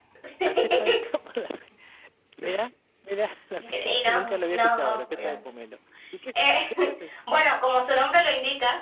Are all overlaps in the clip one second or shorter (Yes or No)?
No